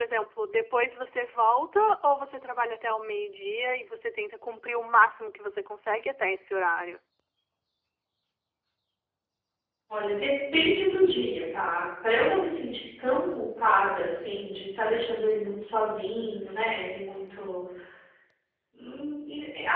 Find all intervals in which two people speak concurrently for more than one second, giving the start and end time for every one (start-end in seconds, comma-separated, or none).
none